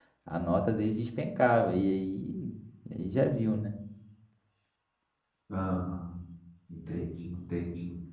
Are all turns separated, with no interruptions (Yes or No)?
Yes